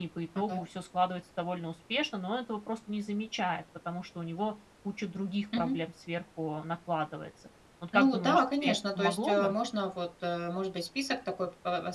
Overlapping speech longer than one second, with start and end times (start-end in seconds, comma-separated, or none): 7.9-9.5